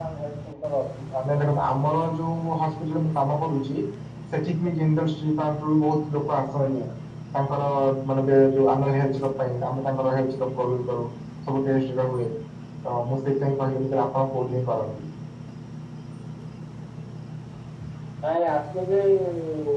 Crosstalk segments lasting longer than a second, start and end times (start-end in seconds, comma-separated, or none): none